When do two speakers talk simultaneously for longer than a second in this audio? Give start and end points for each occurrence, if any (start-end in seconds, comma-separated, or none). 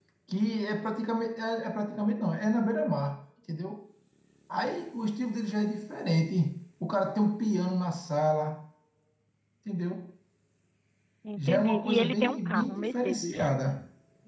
11.4-13.5